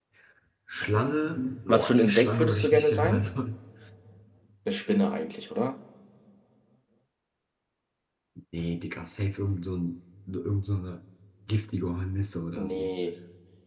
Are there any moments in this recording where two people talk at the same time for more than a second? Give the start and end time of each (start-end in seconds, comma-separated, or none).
1.7-3.3